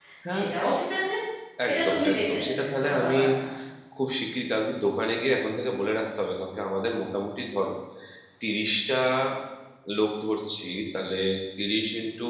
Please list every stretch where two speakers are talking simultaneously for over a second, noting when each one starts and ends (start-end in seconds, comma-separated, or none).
1.7-3.2